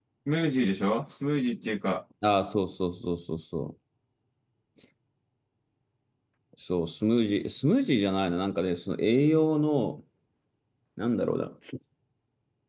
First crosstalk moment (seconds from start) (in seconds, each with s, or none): none